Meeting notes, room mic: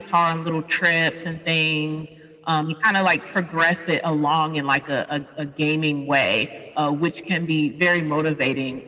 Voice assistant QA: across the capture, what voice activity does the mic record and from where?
echo only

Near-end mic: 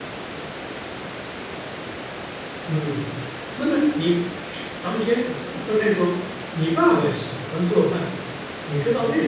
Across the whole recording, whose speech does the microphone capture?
user only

